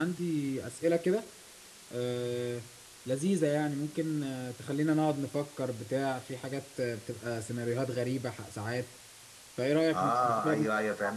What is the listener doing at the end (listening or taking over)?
taking over